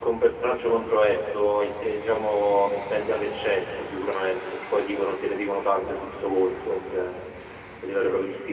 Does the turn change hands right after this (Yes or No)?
No